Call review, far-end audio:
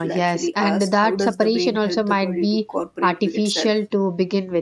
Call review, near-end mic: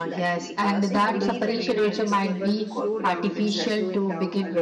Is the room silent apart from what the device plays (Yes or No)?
No